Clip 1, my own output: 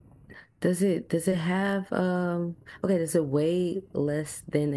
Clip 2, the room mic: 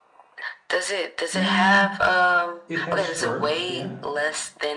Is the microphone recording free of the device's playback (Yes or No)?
No